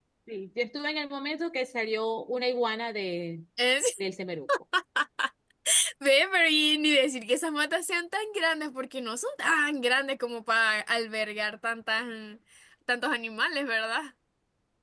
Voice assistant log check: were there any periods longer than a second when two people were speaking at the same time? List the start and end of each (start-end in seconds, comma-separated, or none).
none